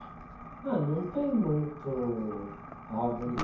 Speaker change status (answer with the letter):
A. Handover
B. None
B